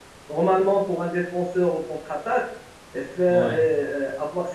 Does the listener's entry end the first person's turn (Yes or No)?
No